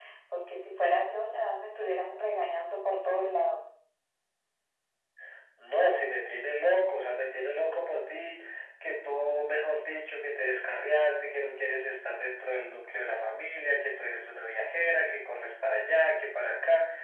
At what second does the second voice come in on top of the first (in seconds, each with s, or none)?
none